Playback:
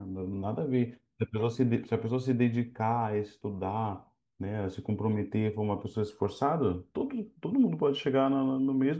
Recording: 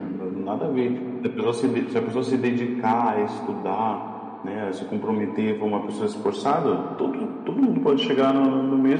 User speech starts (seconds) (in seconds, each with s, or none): none